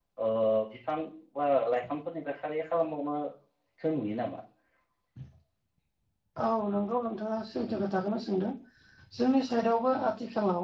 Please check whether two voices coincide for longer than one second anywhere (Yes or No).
No